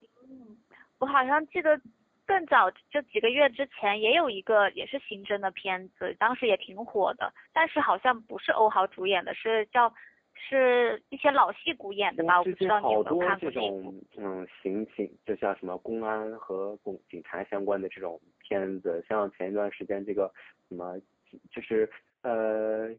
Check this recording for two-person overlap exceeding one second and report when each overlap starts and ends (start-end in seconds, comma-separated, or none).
12.2-13.7